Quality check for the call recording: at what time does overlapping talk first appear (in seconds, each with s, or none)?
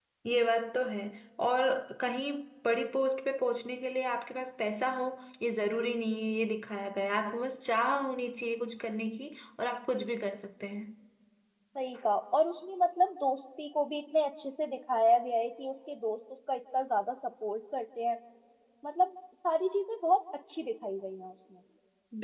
none